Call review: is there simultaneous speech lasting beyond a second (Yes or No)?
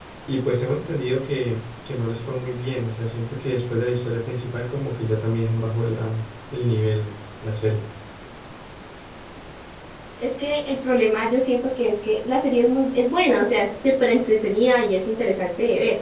No